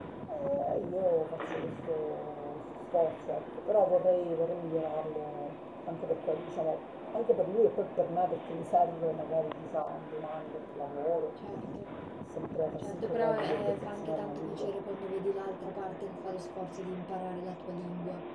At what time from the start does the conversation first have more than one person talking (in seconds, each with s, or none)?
12.8 s